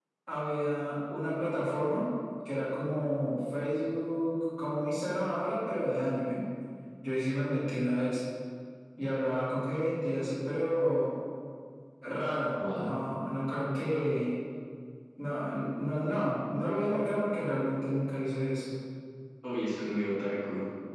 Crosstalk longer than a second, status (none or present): none